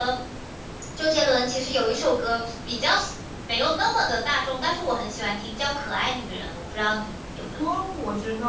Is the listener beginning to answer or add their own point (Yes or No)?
Yes